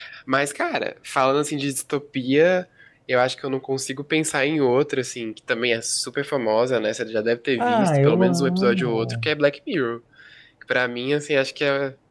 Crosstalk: present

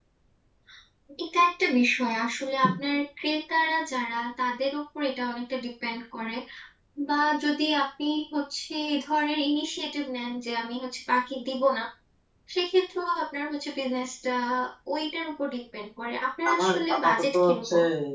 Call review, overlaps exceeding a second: present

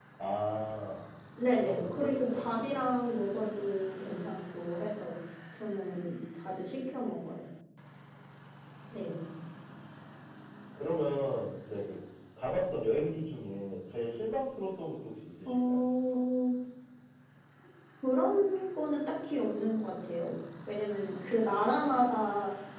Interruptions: present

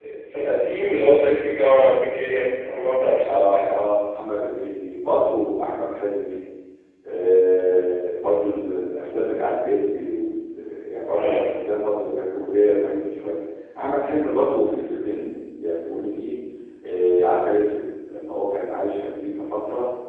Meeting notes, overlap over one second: none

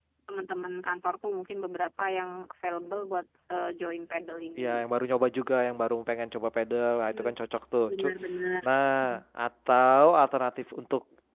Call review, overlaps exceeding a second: none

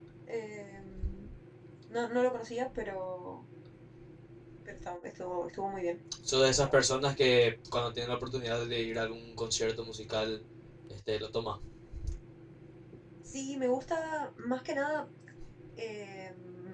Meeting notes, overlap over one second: none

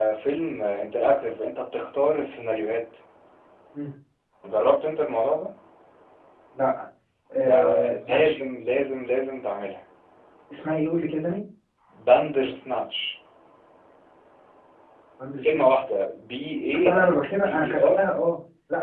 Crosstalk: present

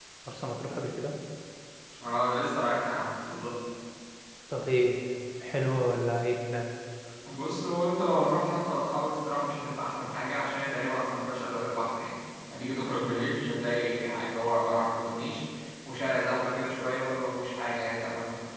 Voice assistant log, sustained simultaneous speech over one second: none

